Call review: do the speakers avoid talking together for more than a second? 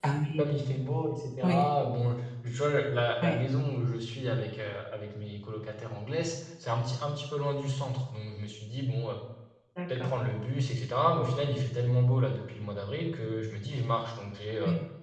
Yes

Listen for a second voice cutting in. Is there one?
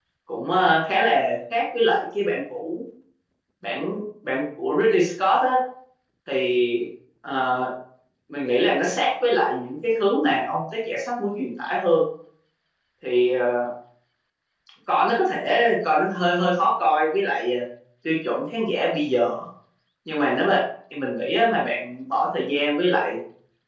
No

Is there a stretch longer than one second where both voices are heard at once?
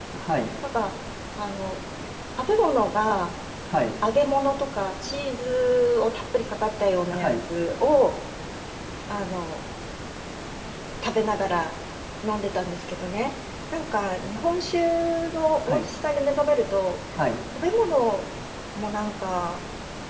No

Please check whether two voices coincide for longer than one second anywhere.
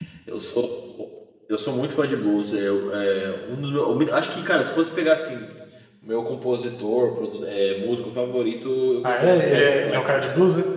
Yes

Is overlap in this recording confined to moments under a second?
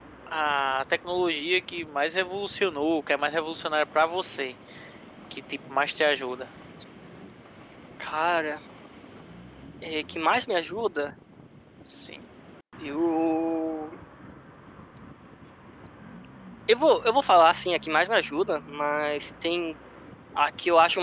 Yes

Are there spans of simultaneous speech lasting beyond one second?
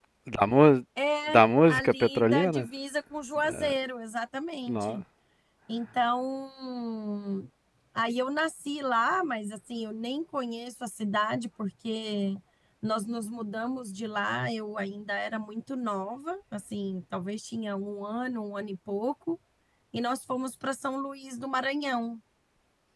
Yes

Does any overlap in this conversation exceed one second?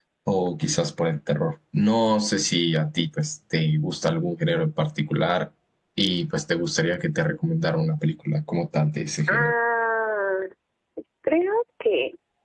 No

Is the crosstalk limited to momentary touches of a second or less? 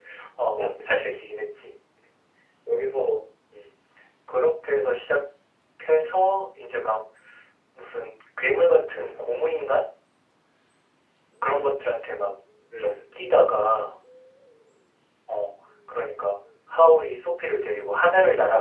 Yes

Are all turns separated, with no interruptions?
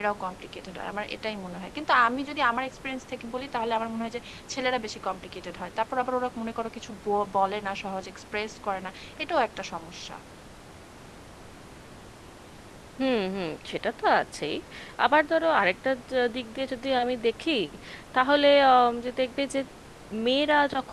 Yes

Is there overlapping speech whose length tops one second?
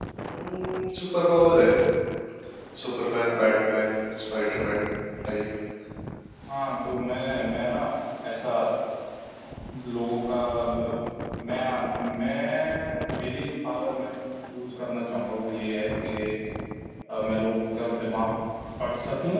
No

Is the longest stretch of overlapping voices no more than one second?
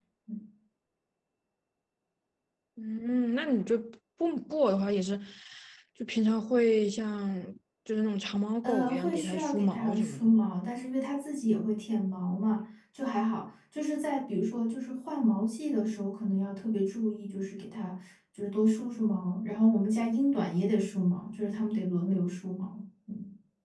No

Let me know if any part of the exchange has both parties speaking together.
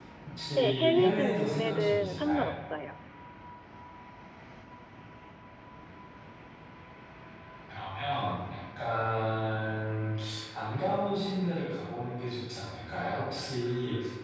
Yes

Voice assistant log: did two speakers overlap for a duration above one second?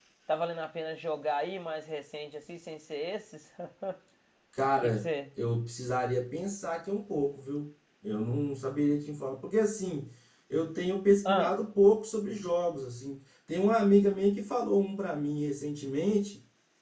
No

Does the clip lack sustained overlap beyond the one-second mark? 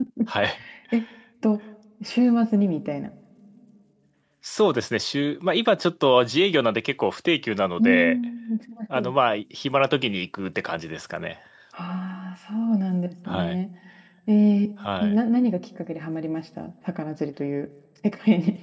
Yes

